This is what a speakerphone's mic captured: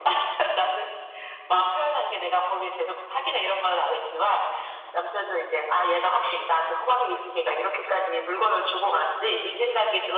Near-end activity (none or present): none